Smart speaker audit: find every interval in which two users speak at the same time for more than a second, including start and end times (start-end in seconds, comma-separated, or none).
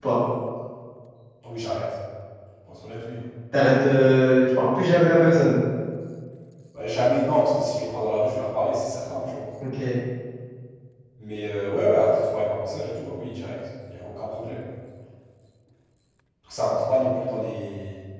none